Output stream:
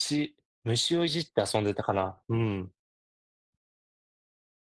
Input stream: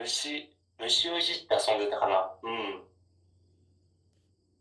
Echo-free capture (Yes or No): No